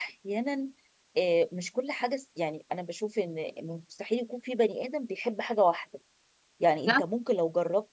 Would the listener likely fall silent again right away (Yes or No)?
Yes